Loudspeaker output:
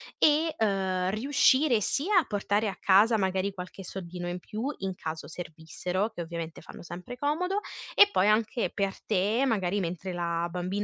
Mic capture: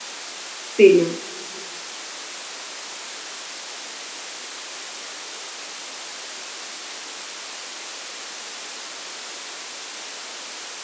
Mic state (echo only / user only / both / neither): user only